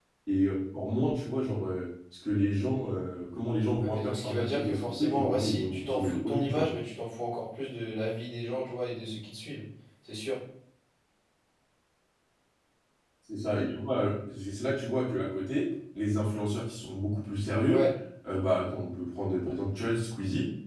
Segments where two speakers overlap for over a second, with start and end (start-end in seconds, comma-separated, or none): 3.8-6.7